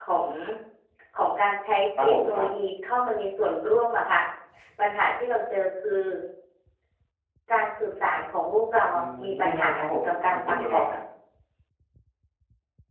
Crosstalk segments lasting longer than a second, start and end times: 8.9-10.9

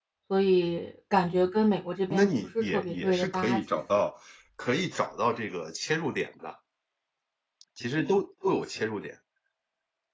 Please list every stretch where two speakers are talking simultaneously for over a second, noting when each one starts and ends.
2.1-4.0

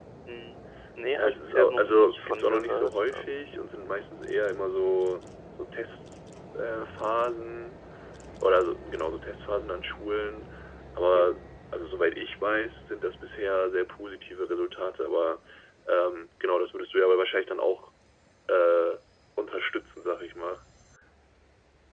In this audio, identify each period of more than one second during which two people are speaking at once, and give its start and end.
1.2-3.3

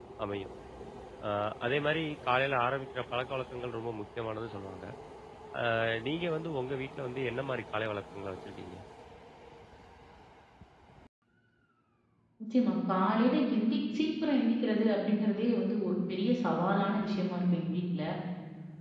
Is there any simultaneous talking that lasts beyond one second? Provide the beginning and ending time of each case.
none

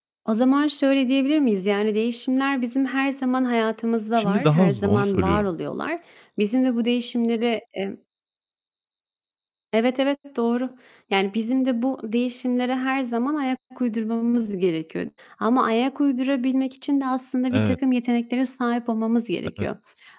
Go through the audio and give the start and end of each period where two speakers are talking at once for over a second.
4.2-5.5

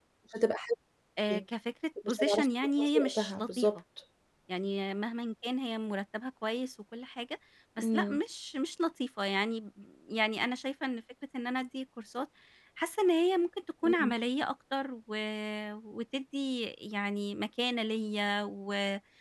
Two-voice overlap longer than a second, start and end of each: 2.0-3.7

